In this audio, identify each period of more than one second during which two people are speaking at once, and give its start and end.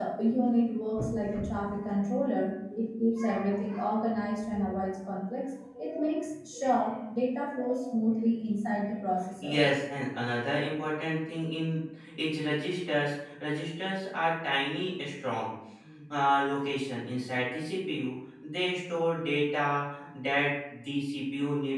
none

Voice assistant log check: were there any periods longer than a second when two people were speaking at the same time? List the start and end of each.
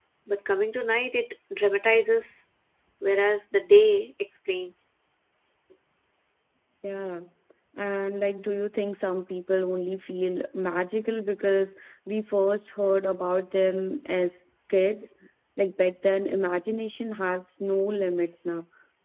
none

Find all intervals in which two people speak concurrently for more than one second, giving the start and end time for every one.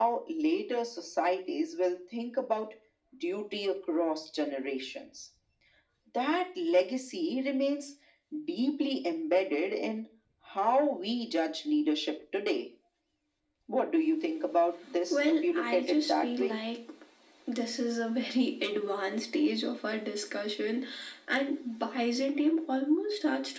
15.1-16.6

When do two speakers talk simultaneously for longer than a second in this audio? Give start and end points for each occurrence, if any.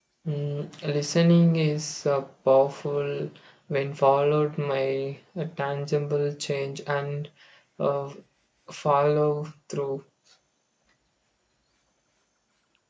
none

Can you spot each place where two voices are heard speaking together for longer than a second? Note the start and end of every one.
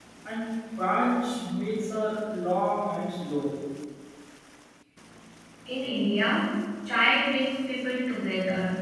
none

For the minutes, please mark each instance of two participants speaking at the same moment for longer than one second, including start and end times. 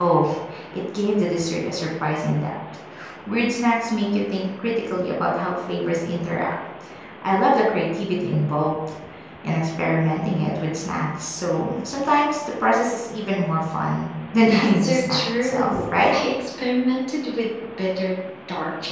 14.5-16.1

